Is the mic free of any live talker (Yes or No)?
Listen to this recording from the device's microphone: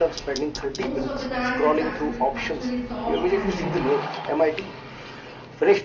No